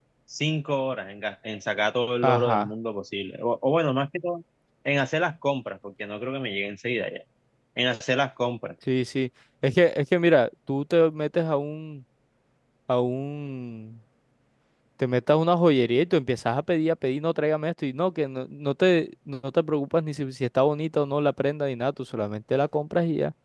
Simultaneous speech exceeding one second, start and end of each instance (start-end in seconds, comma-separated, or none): none